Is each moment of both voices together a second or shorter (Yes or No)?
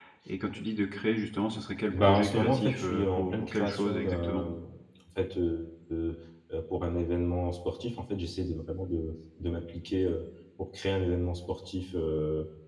No